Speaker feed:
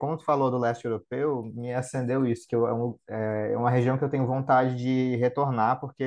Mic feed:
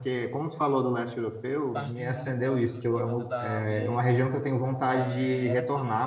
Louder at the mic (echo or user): echo